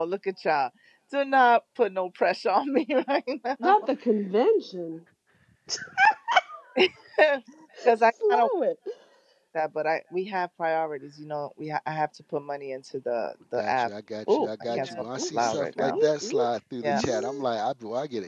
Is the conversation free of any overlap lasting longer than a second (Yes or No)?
No